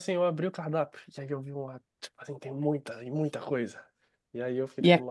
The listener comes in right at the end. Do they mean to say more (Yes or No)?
No